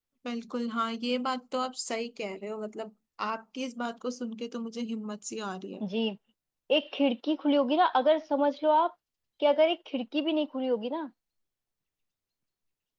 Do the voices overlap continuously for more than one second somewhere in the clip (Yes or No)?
No